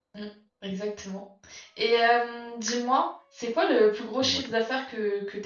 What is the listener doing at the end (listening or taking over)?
listening